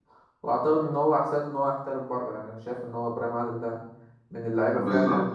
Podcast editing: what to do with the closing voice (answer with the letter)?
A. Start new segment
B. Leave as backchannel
A